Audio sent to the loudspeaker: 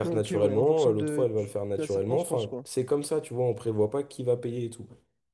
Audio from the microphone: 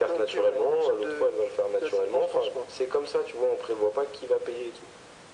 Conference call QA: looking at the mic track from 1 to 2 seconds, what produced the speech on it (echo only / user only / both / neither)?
echo only